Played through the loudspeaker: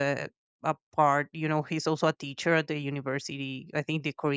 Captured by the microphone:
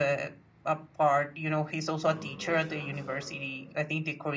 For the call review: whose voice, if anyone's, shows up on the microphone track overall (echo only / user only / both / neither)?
both